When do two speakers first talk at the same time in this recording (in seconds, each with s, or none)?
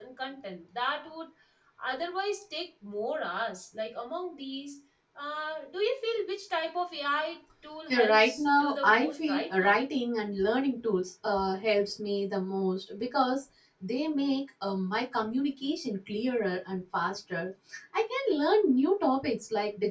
7.9 s